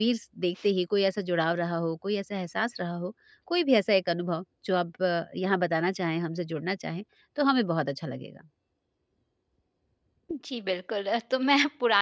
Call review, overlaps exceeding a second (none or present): none